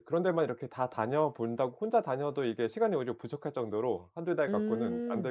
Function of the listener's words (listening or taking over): taking over